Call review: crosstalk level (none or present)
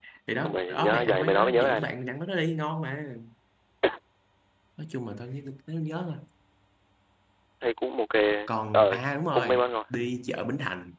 present